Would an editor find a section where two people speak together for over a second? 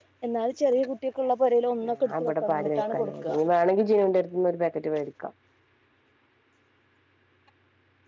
Yes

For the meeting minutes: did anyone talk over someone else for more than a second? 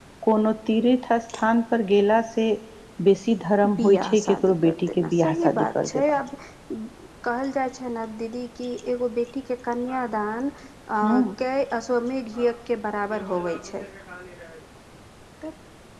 Yes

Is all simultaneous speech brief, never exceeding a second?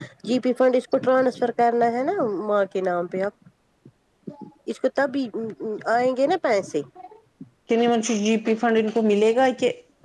Yes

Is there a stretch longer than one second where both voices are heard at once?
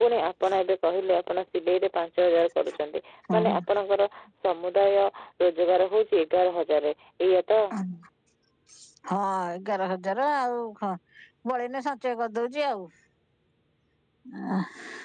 No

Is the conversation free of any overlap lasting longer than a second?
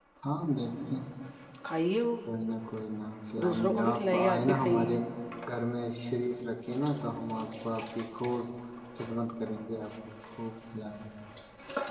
No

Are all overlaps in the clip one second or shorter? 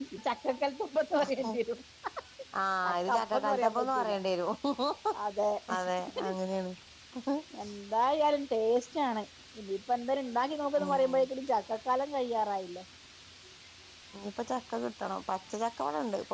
No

